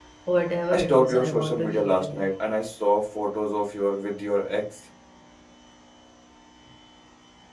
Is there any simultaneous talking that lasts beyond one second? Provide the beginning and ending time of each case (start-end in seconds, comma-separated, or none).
0.7-2.2